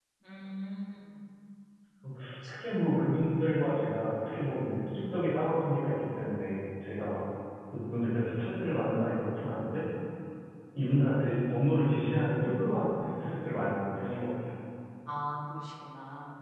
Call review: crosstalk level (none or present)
none